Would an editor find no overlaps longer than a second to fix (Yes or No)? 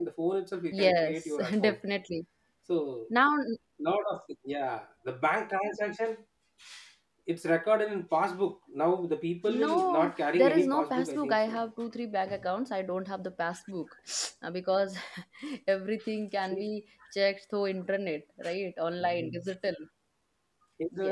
No